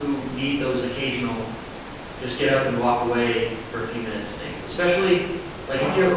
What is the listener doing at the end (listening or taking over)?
listening